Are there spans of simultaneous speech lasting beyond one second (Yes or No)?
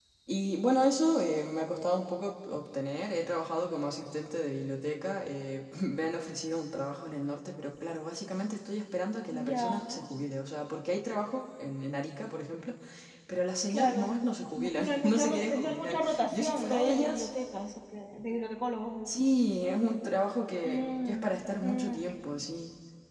Yes